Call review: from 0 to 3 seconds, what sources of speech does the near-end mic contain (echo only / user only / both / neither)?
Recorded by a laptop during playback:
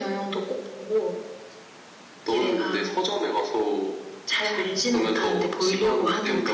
echo only